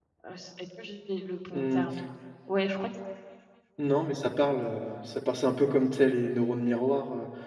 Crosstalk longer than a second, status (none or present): none